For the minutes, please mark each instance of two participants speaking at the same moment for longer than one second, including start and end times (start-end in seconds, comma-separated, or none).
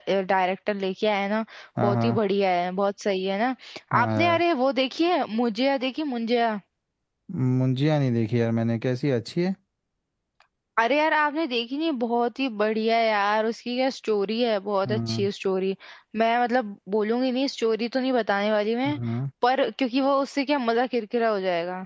none